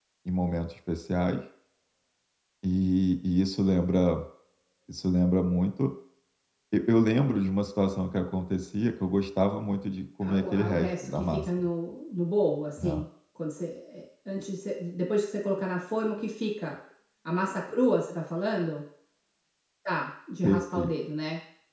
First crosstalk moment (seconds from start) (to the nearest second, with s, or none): 10 s